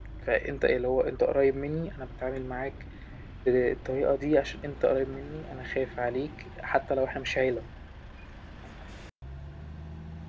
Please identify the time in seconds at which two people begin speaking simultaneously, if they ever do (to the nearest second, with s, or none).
none